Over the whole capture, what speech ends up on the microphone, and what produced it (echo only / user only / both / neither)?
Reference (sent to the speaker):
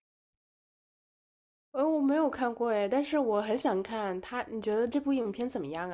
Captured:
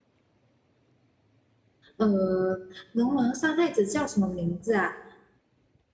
user only